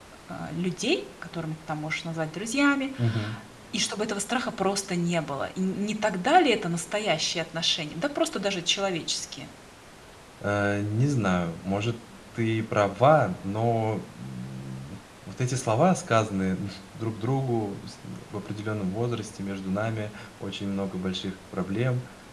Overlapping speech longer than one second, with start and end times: none

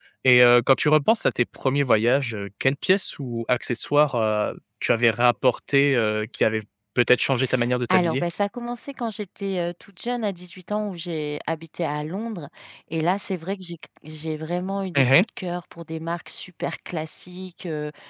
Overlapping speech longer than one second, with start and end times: none

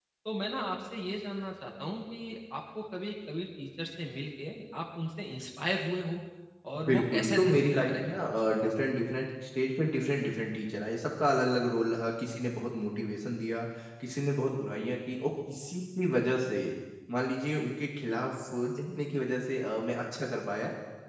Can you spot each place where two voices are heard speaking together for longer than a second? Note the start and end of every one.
6.9-9.0

